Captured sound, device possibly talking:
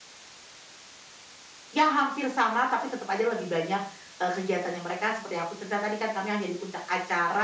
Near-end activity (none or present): present